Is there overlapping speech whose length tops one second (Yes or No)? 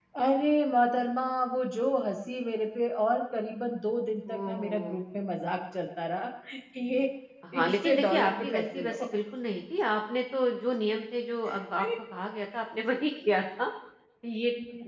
Yes